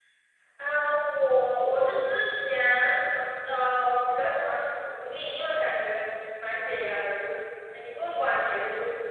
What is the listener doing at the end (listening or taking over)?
listening